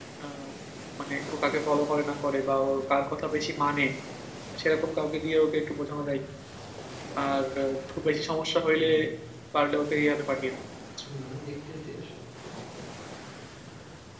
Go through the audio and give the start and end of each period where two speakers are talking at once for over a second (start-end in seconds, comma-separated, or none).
none